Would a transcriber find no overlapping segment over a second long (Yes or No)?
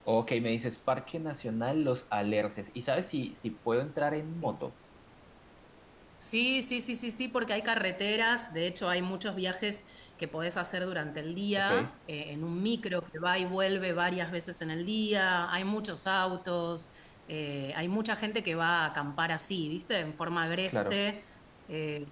Yes